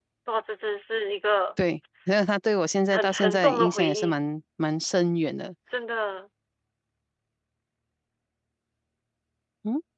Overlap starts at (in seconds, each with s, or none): 2.9 s